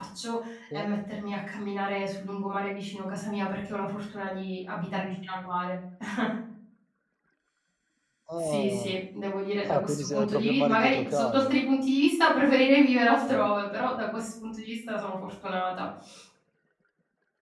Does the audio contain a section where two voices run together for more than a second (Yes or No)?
Yes